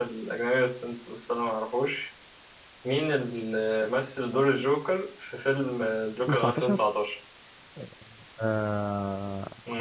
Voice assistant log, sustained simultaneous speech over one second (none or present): none